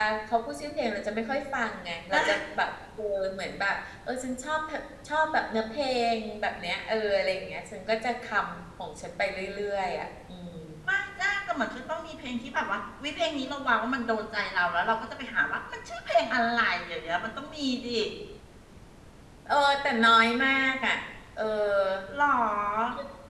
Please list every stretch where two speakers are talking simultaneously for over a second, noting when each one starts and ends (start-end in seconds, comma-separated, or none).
none